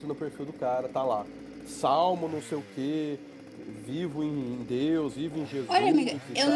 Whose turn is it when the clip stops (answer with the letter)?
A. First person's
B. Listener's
B